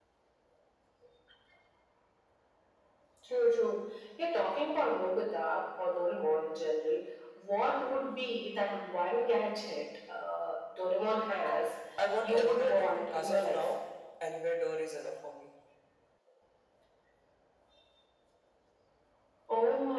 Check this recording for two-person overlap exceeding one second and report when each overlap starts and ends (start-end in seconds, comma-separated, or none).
12.2-13.7